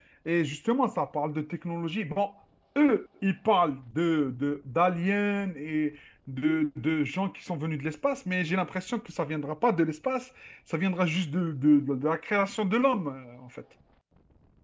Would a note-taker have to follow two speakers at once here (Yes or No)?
No